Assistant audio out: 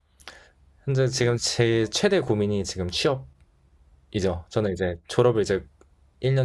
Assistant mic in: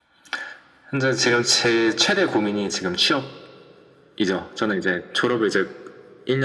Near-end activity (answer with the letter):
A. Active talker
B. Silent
B